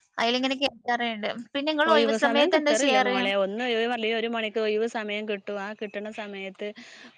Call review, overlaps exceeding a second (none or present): present